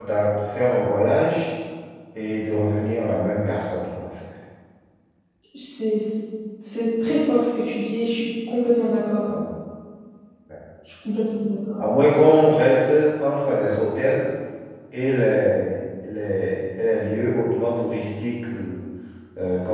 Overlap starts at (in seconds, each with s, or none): none